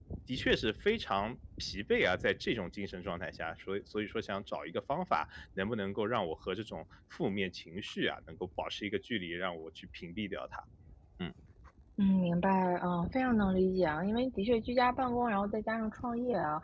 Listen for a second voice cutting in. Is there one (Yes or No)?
No